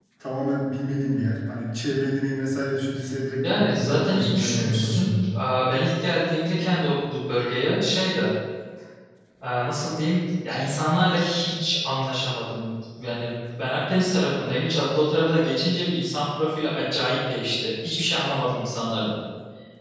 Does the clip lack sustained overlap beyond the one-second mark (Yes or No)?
No